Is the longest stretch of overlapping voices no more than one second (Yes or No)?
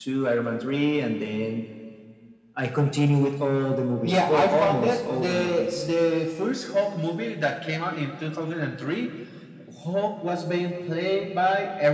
No